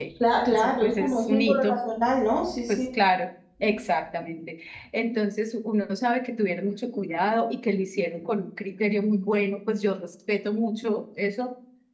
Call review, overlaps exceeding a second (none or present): present